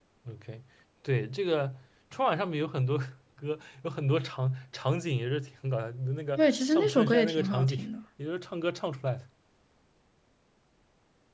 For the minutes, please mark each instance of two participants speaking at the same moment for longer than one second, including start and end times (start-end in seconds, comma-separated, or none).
6.4-7.8